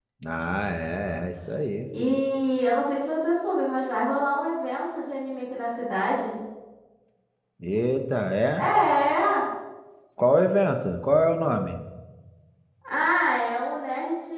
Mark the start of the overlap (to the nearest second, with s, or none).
none